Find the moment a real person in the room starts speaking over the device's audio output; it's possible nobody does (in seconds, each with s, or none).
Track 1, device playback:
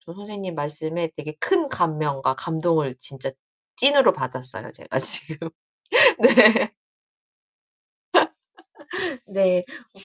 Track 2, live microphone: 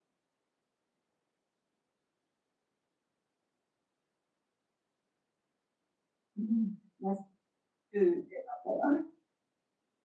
6.3 s